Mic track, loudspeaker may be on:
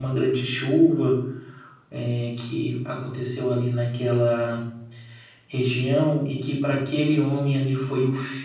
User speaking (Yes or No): Yes